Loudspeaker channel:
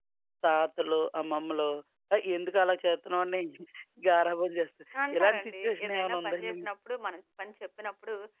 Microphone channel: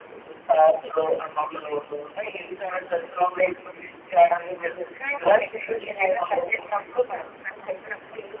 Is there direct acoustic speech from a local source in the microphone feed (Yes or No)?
No